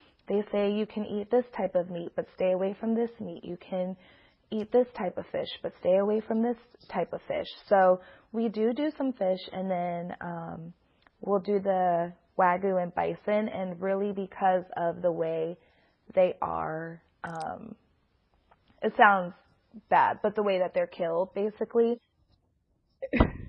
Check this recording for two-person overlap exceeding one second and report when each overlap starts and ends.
none

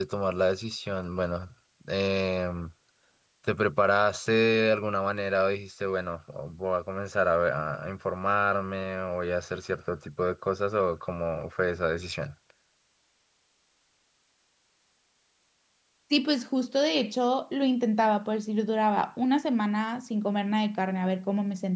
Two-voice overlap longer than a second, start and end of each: none

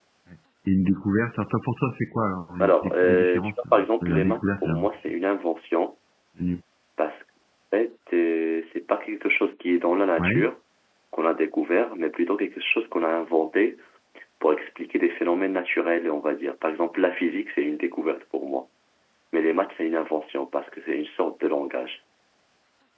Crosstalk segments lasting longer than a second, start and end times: 2.6-4.9

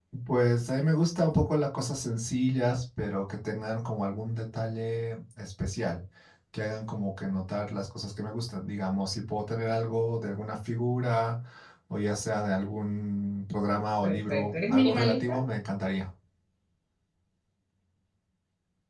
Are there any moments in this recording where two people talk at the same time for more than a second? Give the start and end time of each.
14.0-15.4

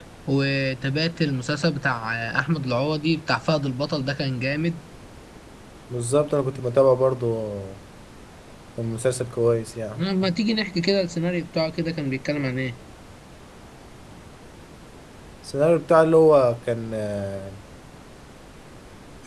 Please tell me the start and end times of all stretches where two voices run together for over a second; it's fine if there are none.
none

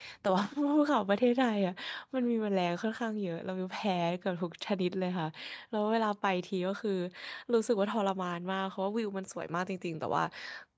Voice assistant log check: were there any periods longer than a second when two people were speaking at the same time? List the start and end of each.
none

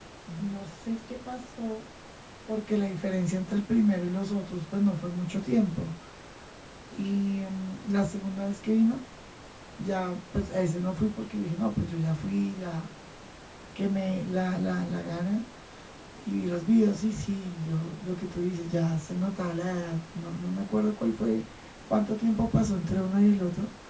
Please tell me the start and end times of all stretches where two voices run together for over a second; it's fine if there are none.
none

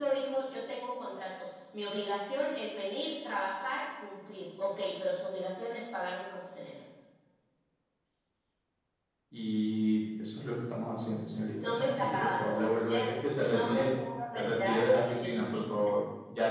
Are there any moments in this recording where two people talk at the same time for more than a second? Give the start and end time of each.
11.6-13.9, 14.3-15.6

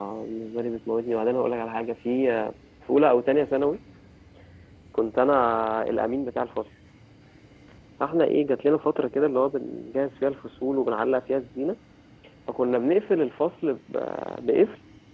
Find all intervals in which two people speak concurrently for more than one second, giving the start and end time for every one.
none

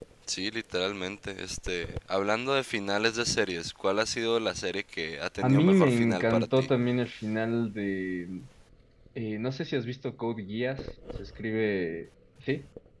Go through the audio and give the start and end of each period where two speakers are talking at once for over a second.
5.4-6.7

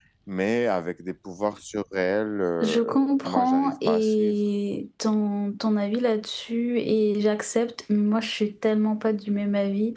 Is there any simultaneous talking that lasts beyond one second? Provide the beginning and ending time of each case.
2.6-4.3

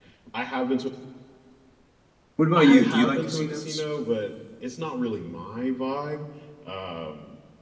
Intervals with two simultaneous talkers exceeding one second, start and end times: 2.5-3.8

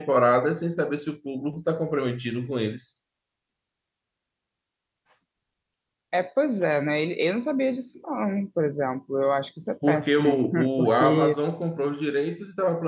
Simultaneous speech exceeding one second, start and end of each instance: 9.9-11.3

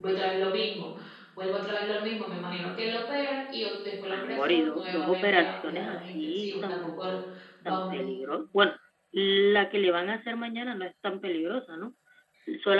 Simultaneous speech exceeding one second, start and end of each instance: 4.1-7.1

